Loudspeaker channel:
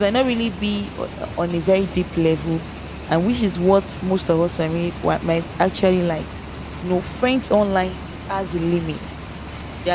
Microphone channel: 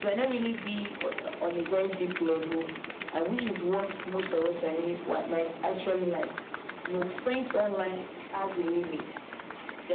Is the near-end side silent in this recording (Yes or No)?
Yes